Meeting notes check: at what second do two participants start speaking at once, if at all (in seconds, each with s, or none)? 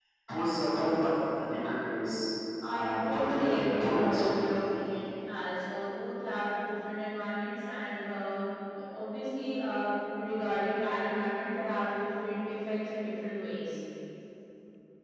2.6 s